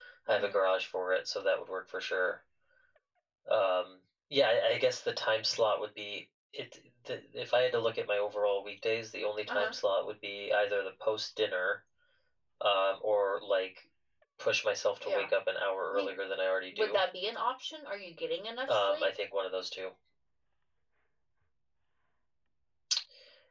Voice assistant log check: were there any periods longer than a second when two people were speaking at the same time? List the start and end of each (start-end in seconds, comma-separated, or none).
none